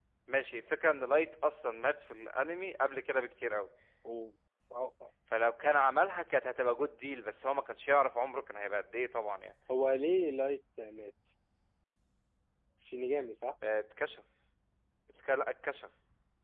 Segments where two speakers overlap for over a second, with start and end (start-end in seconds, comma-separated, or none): none